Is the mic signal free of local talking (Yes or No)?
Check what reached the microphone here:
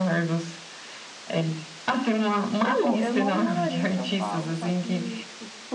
No